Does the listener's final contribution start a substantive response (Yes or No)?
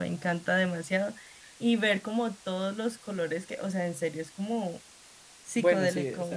Yes